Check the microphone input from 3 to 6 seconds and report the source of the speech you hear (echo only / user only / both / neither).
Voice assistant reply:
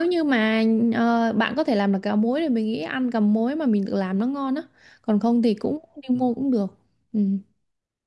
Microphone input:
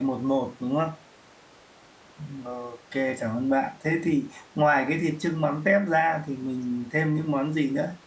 user only